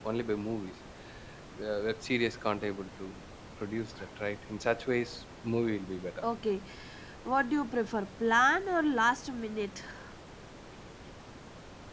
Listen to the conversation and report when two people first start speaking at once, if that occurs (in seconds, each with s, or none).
none